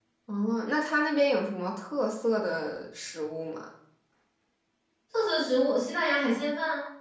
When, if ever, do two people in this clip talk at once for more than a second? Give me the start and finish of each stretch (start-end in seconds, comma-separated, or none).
none